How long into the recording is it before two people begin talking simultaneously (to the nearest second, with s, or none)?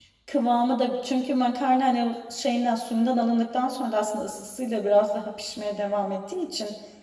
none